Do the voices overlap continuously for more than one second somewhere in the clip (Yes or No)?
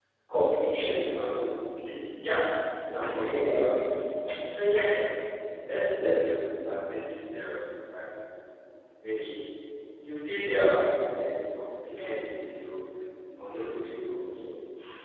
No